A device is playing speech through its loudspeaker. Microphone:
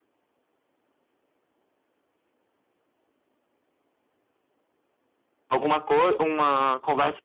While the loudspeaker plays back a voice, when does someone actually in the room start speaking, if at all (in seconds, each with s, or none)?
5.5 s